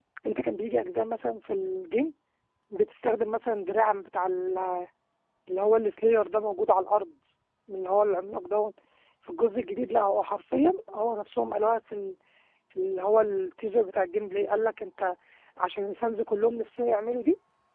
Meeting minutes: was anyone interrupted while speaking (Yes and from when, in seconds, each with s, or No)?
No